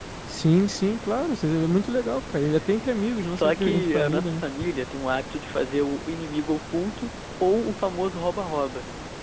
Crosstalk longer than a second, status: present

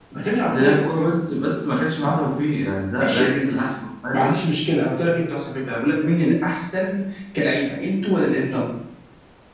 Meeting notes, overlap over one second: none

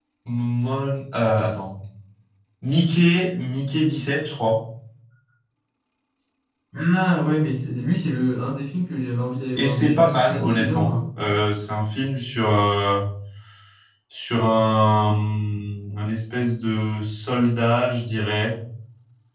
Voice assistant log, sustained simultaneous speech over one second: present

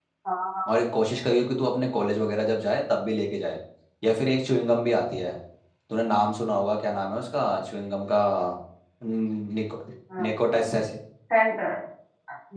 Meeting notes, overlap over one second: none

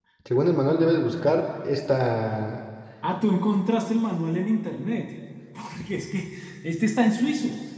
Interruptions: none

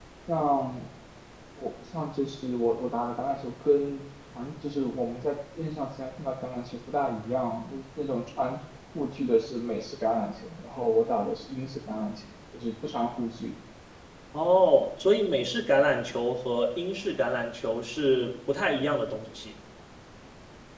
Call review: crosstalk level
none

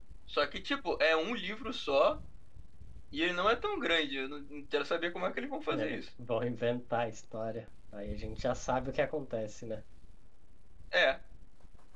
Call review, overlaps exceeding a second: none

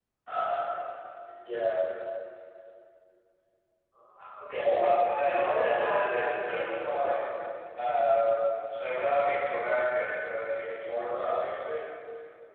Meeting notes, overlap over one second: present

